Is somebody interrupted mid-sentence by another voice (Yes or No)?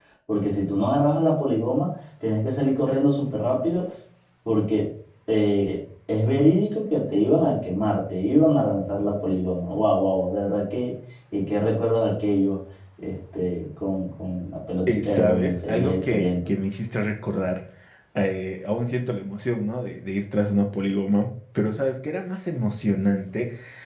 Yes